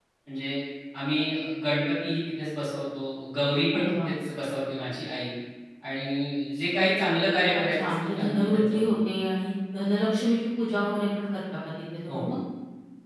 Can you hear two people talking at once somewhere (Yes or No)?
Yes